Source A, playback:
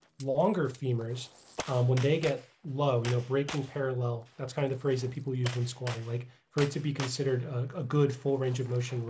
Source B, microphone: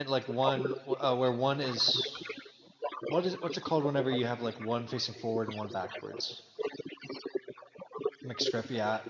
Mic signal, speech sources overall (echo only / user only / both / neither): both